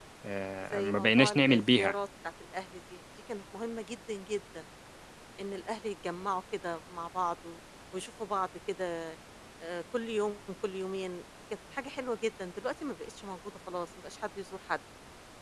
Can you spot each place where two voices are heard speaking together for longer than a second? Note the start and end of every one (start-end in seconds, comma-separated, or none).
0.7-1.9